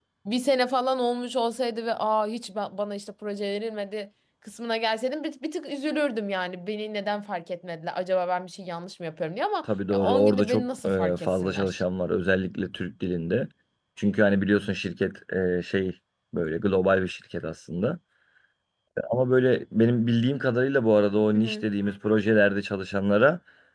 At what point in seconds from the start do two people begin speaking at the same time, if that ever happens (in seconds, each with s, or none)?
9.9 s